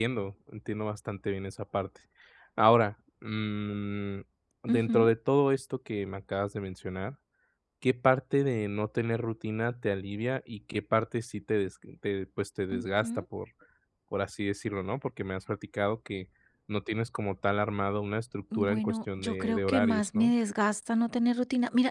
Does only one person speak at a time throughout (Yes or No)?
No